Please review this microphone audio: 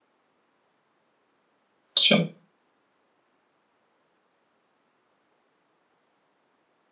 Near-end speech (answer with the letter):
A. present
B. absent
A